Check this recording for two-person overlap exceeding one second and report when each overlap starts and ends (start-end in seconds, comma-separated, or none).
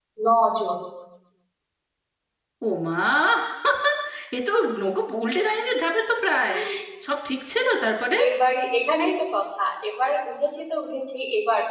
none